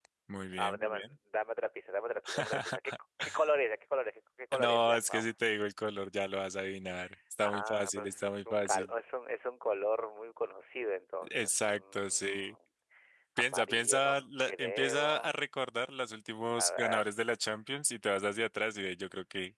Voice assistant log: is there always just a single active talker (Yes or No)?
No